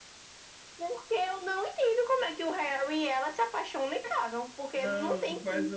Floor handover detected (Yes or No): Yes